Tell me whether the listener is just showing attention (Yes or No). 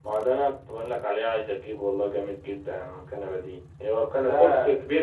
Yes